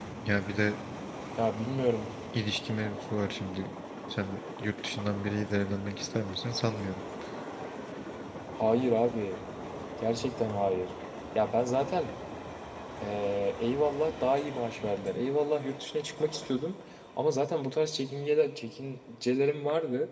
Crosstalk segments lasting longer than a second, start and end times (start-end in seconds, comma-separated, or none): none